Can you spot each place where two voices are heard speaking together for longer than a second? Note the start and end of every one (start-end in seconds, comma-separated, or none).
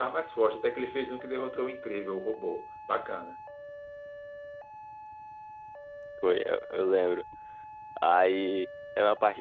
none